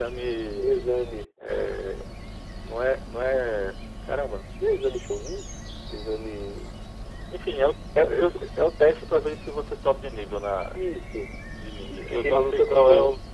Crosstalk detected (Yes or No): Yes